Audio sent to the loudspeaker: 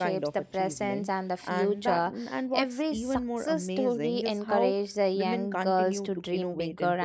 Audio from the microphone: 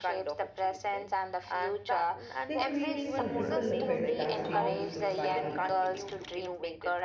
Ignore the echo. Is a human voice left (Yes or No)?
Yes